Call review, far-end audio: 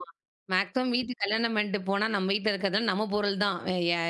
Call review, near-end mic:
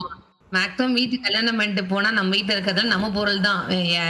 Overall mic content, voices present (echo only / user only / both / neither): echo only